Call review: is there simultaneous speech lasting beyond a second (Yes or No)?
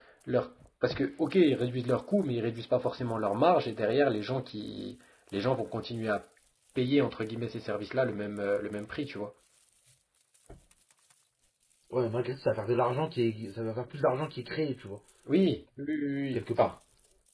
No